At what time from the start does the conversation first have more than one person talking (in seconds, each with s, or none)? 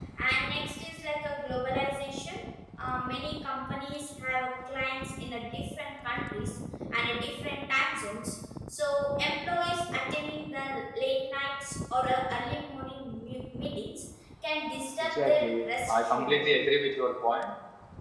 15.0 s